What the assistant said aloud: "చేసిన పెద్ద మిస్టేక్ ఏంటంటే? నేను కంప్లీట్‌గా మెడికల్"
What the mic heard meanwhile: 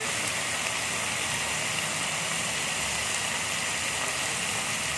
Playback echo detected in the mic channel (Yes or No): No